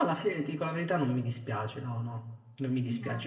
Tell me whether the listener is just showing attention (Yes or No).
Yes